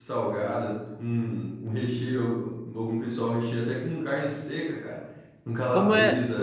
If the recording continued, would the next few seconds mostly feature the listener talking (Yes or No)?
Yes